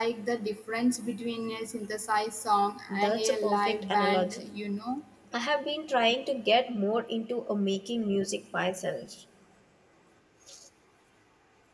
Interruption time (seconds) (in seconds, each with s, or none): 2.9 s